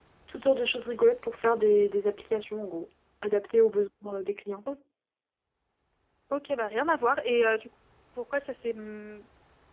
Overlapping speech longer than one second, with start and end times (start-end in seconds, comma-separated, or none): none